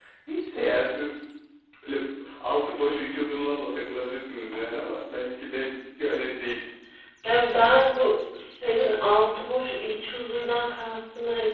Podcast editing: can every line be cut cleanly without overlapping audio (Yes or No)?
Yes